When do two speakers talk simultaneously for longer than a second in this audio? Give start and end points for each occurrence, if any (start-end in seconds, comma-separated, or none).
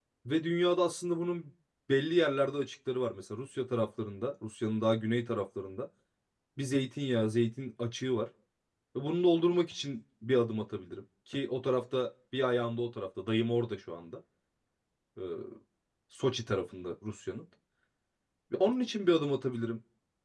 none